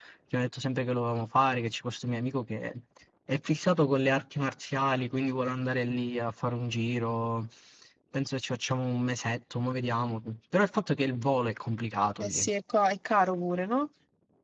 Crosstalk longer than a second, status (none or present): none